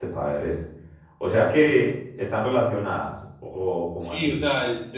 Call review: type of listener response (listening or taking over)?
taking over